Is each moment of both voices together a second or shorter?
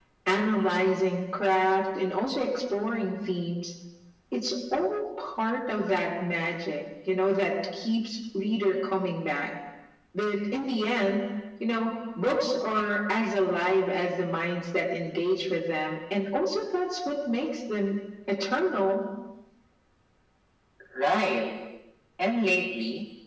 Yes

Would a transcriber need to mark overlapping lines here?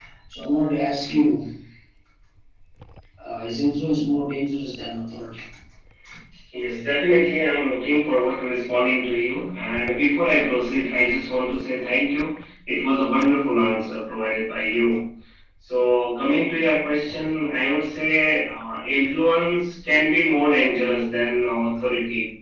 No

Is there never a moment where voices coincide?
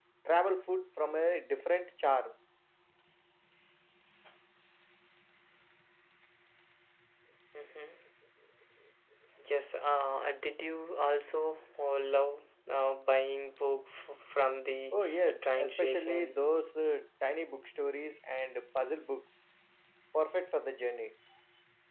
No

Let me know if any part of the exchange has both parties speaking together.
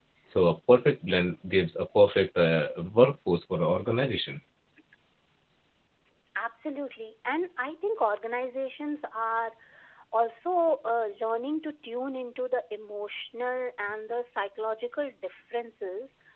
No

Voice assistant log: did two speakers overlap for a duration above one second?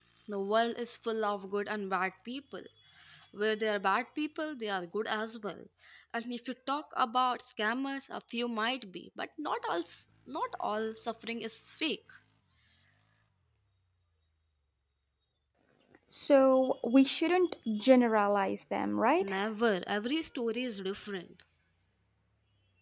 No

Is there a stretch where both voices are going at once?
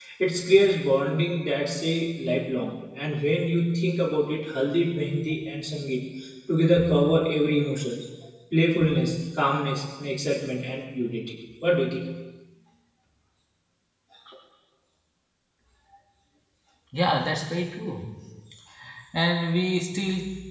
No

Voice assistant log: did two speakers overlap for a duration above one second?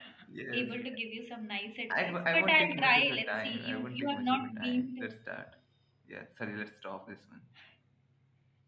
Yes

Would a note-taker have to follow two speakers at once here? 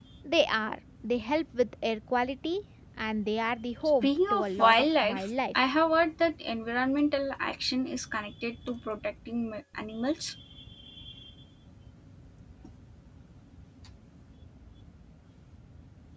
Yes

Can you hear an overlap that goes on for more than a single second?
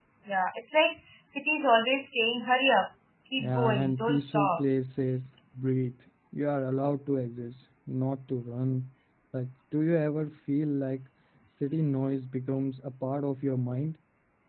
Yes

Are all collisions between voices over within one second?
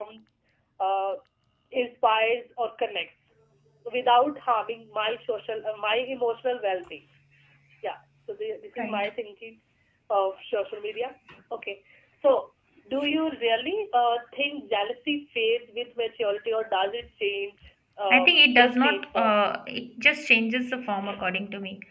No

